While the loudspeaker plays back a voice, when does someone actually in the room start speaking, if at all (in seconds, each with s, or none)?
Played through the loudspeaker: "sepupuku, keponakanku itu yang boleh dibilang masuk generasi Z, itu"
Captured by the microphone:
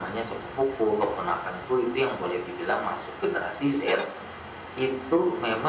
none